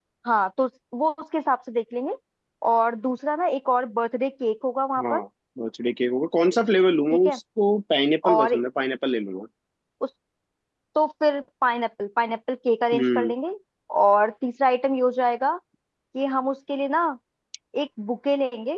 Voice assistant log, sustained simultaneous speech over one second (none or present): none